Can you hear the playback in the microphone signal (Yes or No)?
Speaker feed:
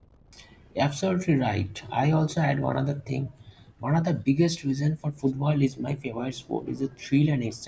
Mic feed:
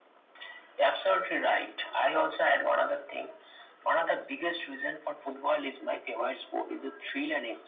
Yes